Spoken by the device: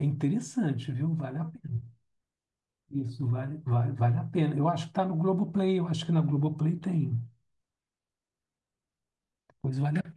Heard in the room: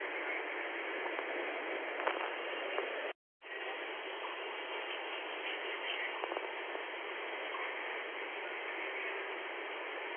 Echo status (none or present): none